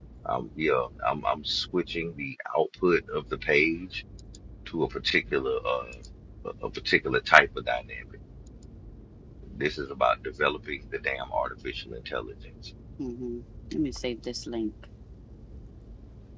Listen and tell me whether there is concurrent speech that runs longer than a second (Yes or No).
No